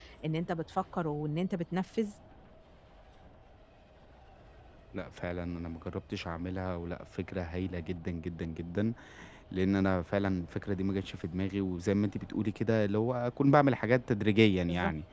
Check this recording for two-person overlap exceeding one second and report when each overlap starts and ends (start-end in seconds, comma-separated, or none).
none